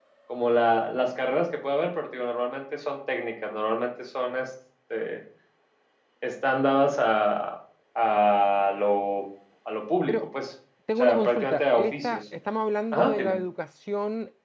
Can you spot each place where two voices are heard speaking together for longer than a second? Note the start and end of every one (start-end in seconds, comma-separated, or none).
11.0-12.2